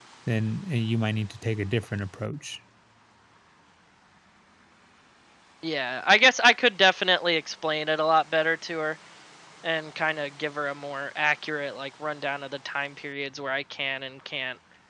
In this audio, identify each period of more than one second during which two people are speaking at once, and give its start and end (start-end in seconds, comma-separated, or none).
none